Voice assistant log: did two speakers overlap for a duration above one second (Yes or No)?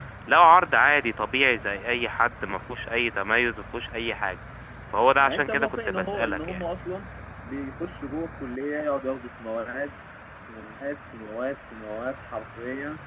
Yes